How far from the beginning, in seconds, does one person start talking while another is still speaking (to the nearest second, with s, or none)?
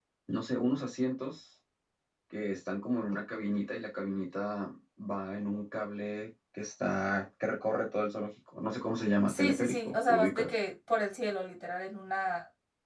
9 s